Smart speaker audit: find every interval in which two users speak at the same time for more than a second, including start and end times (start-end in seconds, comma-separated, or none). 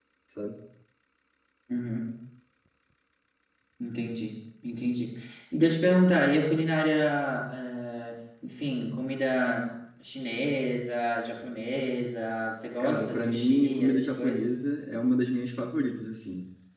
12.8-14.5